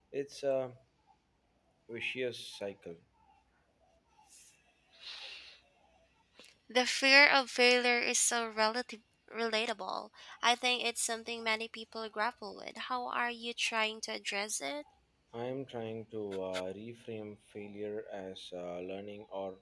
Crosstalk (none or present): none